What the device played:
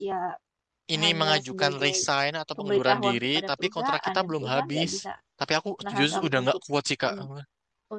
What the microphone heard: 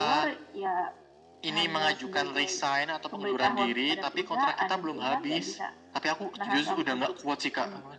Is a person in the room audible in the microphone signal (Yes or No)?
No